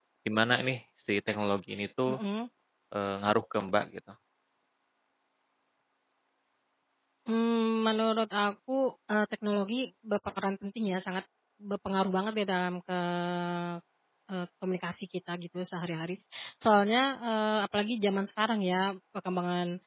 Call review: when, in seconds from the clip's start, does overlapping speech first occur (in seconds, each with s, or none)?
none